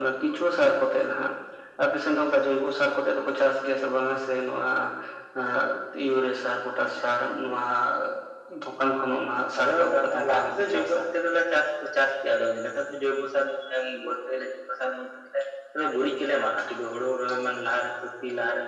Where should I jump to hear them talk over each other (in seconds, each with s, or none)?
9.6 s